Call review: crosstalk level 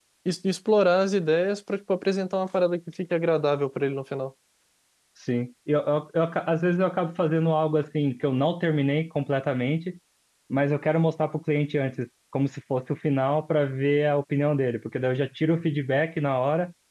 none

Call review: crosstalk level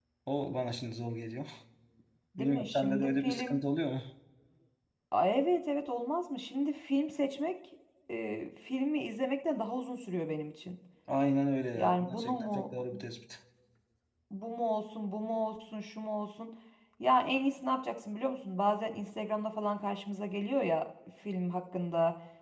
present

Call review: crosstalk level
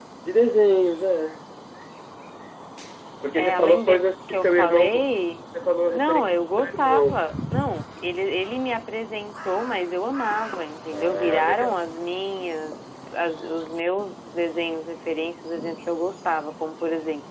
present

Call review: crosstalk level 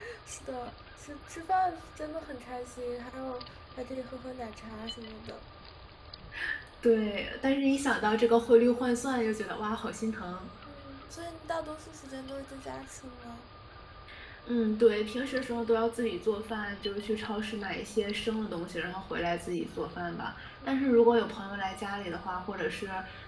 none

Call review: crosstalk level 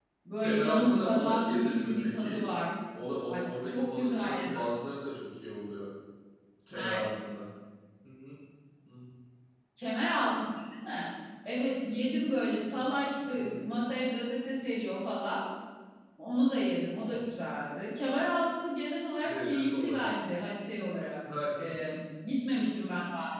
present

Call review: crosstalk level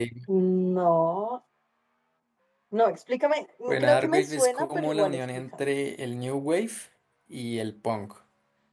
present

